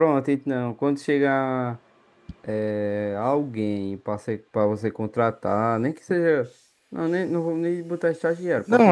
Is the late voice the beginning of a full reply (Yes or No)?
Yes